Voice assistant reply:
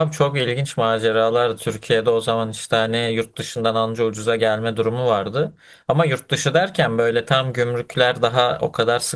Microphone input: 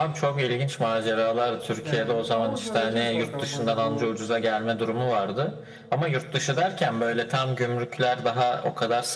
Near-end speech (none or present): present